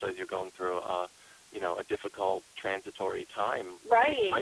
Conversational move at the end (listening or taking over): taking over